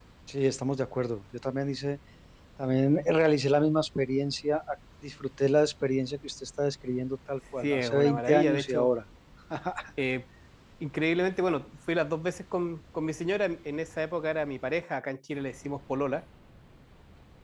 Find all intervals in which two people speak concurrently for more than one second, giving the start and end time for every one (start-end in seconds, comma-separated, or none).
7.6-8.9